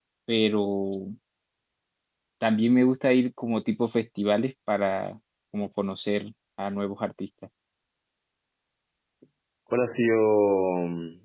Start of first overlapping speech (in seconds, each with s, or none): none